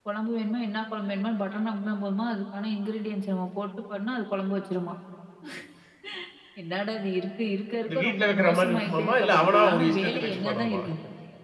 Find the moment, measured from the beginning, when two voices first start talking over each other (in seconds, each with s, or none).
7.8 s